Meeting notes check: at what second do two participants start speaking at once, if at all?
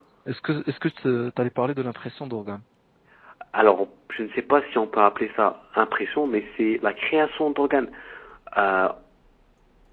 none

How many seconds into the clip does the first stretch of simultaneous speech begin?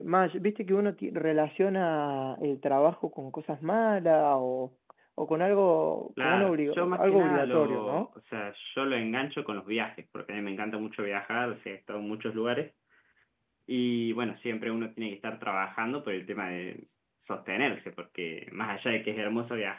6.2 s

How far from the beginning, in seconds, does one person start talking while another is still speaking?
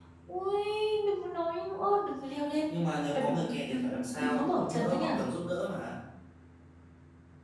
2.7 s

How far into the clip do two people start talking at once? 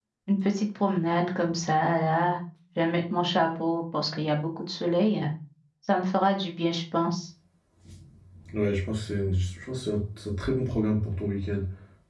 none

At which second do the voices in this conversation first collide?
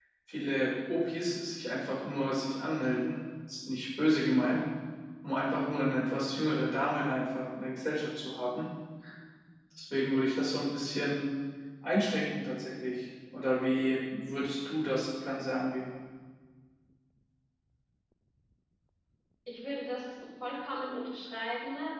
none

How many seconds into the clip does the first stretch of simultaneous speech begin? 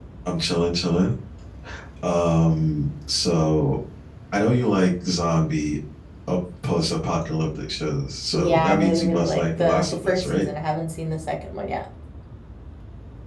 8.3 s

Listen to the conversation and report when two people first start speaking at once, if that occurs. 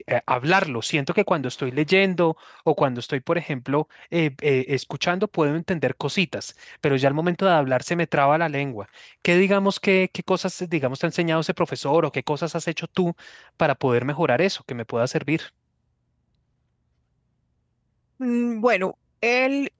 none

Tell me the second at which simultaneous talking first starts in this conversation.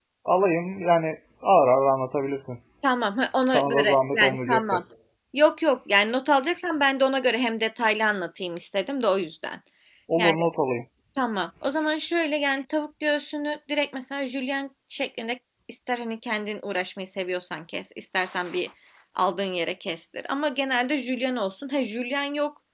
3.5 s

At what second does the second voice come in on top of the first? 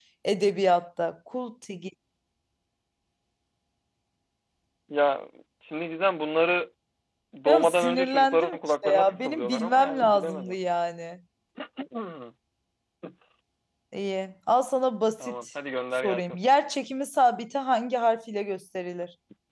7.5 s

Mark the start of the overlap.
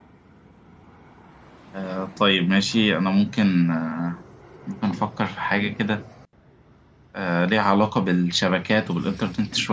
none

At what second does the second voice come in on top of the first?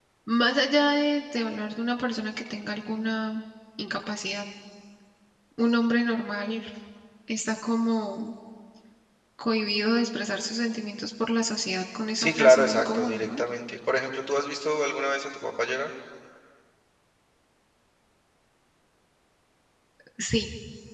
12.1 s

